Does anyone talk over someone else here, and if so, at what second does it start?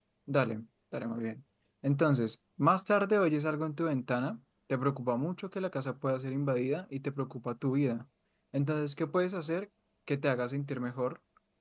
none

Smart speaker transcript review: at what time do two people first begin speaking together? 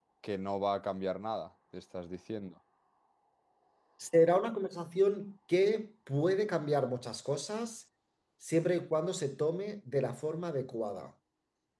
none

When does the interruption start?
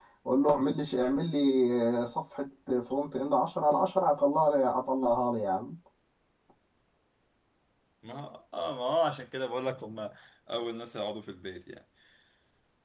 none

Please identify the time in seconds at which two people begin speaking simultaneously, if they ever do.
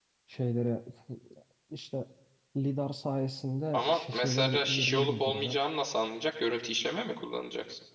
3.7 s

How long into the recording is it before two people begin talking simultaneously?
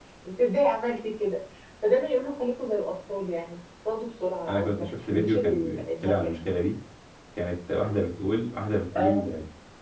4.5 s

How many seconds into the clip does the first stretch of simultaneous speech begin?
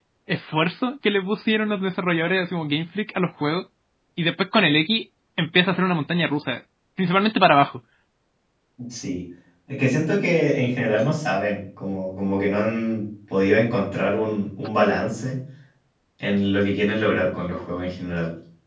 none

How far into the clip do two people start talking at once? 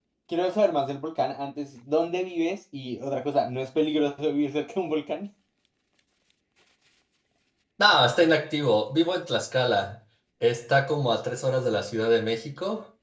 none

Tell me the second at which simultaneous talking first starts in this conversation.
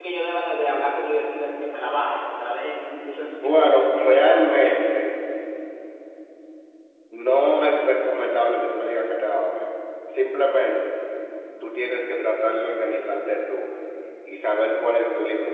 3.4 s

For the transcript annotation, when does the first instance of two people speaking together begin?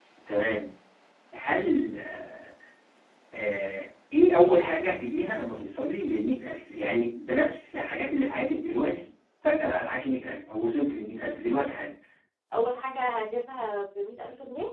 none

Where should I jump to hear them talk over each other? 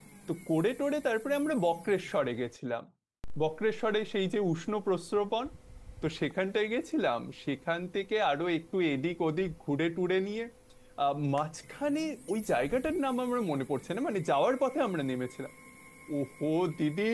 none

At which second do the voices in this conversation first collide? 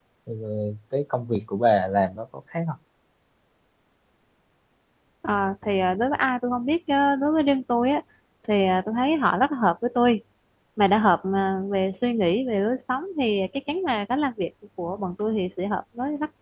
none

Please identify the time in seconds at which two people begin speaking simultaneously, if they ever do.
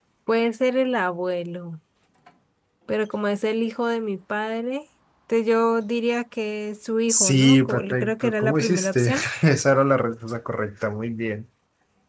7.1 s

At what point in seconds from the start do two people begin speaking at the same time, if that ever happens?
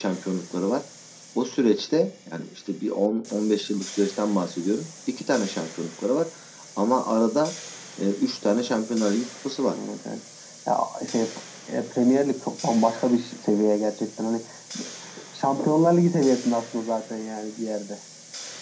none

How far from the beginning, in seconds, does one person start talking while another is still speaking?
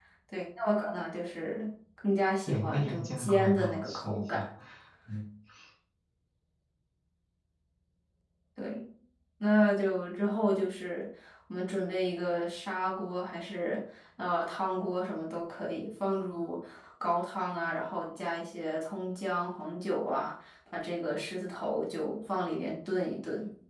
2.4 s

